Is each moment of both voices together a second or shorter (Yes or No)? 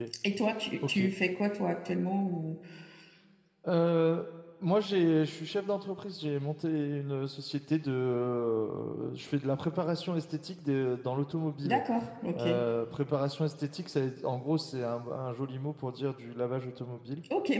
Yes